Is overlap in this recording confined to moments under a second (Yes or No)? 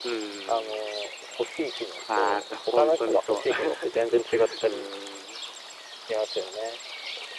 No